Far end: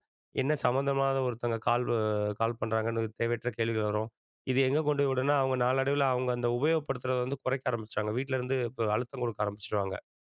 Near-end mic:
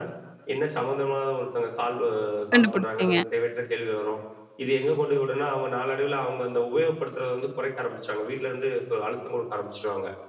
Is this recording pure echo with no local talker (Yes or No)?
No